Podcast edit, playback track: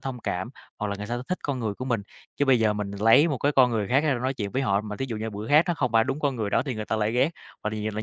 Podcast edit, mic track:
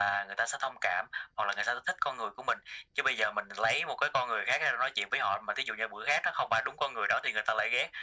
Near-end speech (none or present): none